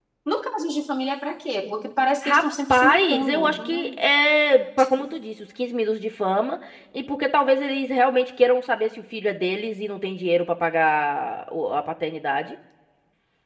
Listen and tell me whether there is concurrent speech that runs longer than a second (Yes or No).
Yes